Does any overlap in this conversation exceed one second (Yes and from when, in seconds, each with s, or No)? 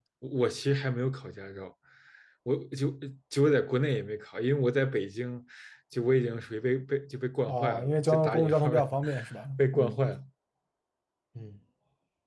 Yes, from 7.5 s